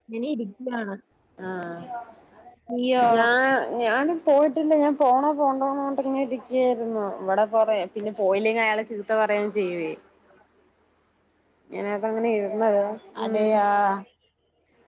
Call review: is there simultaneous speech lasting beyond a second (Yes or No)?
No